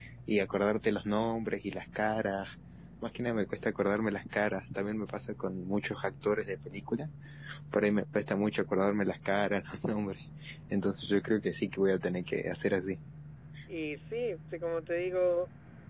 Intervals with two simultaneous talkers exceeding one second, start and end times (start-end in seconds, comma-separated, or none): none